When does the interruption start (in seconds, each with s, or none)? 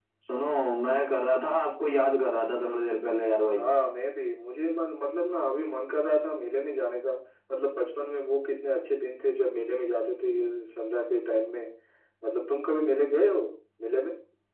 none